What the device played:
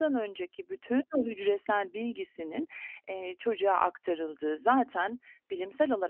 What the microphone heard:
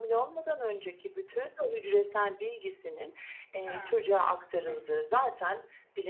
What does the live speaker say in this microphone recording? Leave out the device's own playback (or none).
Ha. Hı hı.